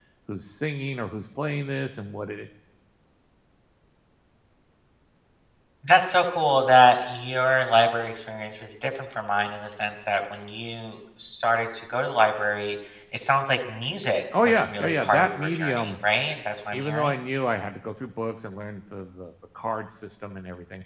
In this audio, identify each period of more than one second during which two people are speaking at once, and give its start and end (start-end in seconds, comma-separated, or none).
14.3-16.0